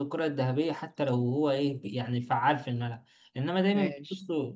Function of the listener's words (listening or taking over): listening